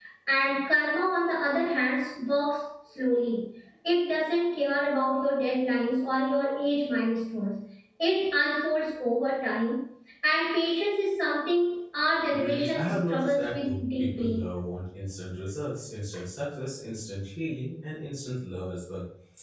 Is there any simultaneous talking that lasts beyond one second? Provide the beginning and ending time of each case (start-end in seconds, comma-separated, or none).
12.3-14.4